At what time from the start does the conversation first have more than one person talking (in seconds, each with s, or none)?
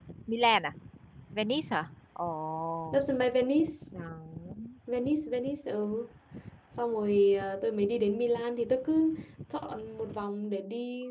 none